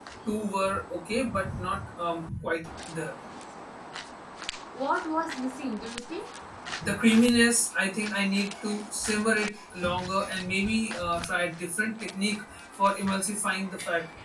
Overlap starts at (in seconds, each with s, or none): none